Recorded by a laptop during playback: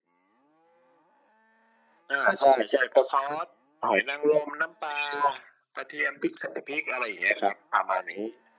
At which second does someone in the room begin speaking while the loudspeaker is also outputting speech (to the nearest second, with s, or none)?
none